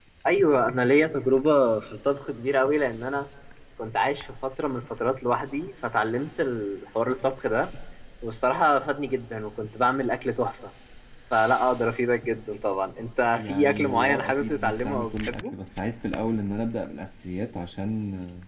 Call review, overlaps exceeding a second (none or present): present